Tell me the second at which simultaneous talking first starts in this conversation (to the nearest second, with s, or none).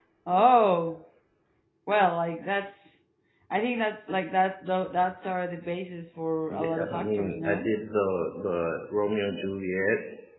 6 s